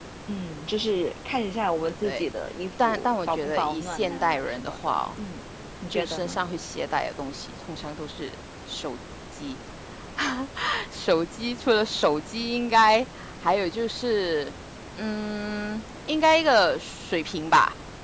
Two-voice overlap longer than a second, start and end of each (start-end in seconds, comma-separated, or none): 2.8-5.0